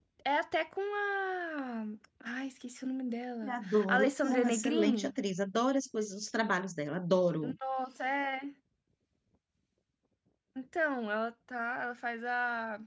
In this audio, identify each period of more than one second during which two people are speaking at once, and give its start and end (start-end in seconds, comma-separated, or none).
3.4-5.1